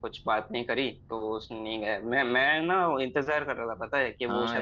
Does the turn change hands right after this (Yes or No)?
Yes